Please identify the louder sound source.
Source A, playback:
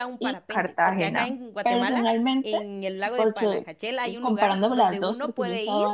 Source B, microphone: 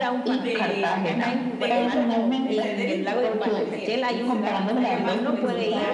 echo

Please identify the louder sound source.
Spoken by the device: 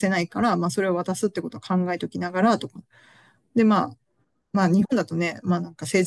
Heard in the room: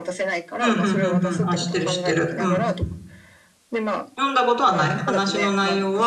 user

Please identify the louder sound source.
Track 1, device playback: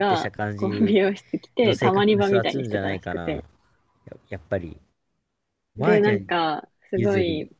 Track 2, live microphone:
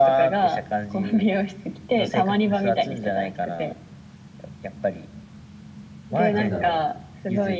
echo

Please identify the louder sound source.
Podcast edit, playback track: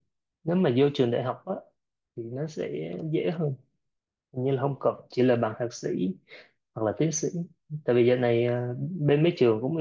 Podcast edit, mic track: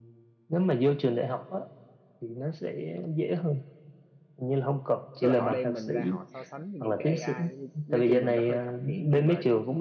echo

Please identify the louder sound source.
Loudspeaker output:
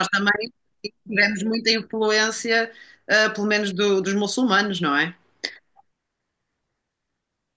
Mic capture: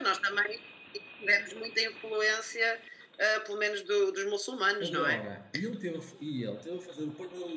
echo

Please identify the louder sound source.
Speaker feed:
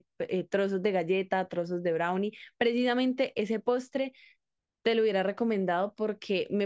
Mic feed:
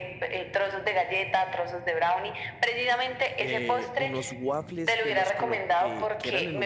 echo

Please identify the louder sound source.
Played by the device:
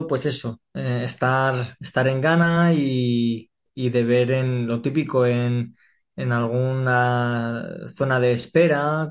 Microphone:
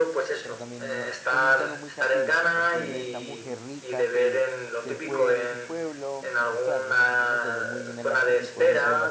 echo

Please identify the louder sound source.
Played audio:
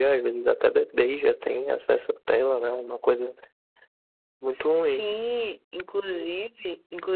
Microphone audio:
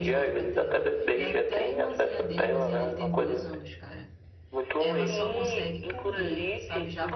echo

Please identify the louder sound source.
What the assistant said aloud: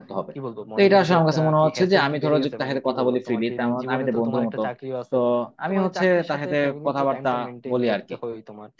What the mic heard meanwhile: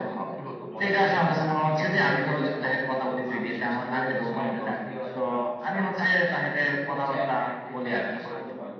echo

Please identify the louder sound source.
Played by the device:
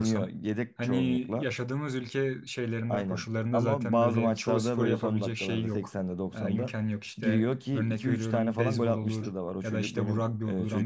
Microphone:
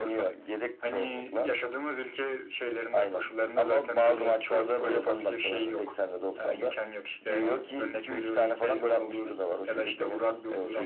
echo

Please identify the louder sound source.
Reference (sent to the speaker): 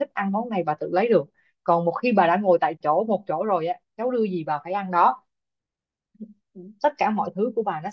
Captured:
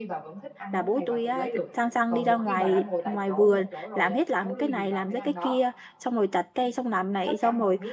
user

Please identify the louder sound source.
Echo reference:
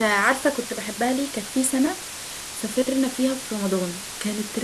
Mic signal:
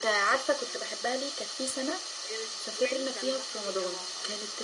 echo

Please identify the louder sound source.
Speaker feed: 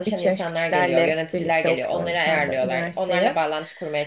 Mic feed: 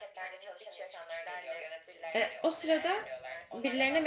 user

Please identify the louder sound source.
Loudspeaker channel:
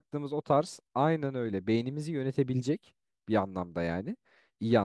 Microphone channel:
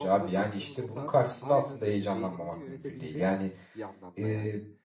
user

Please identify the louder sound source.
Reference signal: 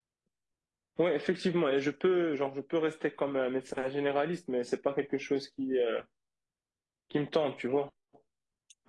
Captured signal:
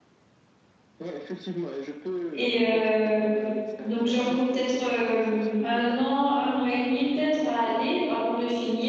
user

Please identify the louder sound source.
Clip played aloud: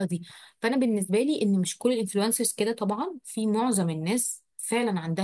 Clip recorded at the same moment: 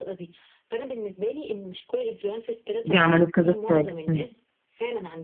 user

